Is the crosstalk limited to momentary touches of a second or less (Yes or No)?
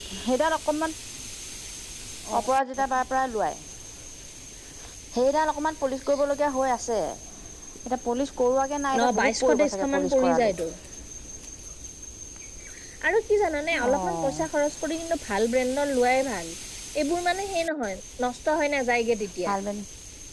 No